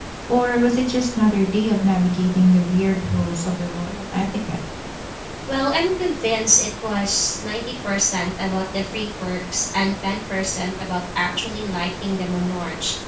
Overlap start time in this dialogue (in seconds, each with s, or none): none